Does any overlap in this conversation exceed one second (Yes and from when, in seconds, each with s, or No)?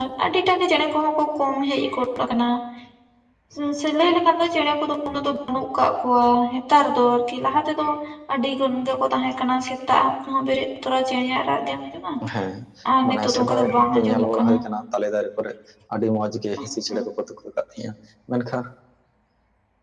Yes, from 13.1 s